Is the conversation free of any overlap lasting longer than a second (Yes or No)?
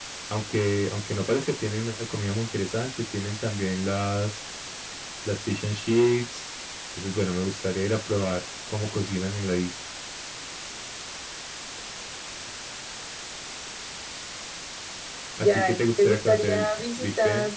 No